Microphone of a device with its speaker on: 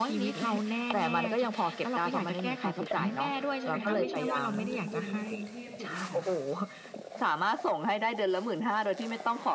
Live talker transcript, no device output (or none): ค่ะ แต่ก็ยังเยอะกว่าเงินเดือนในกรุงเทพ ถูกไหมคะ?